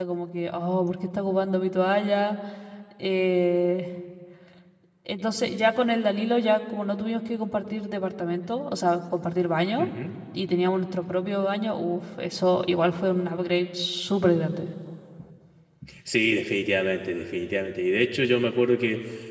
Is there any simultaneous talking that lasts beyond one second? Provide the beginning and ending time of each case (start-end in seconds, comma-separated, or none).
none